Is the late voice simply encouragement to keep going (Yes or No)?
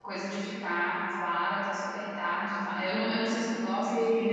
No